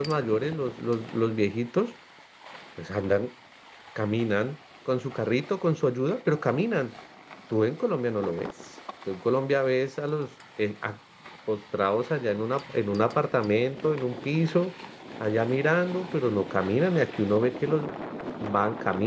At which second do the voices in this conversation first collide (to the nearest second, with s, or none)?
none